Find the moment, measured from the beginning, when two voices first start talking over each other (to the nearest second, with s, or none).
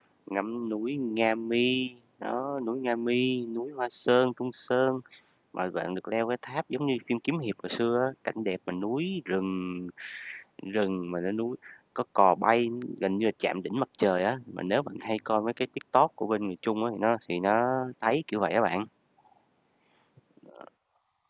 none